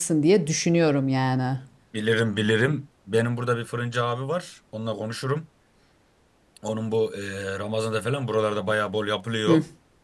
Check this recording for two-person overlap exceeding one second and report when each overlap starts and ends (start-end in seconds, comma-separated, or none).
none